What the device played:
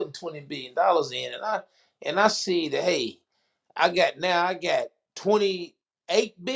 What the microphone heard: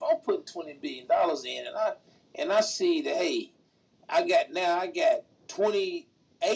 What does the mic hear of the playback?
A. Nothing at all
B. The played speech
B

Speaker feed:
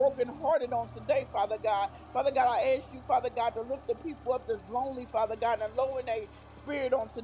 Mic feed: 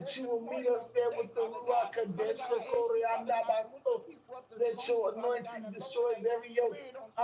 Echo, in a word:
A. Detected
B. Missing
A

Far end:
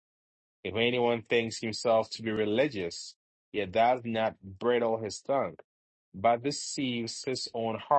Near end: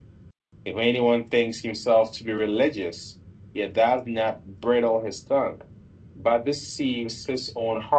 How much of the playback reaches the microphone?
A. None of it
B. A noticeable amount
B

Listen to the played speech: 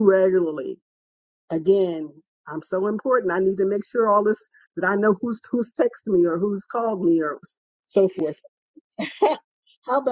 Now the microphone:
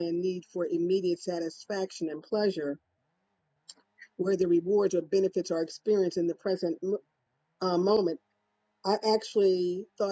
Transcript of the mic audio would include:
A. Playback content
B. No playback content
B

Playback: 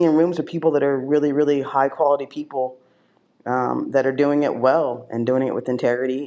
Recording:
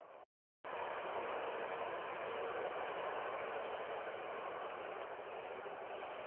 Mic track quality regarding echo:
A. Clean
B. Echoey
A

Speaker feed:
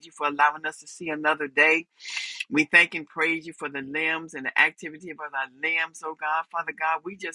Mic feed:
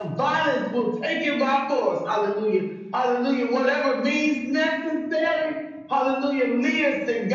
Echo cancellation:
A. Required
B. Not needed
B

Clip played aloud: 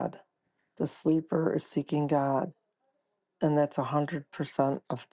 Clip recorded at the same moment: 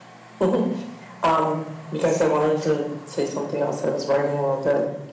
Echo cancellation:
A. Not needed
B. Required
A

